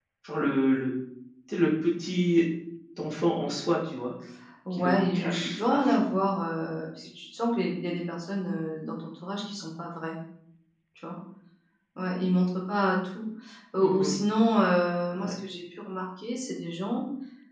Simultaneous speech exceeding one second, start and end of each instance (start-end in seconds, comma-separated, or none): 4.7-6.1